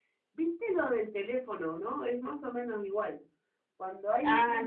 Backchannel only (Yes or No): Yes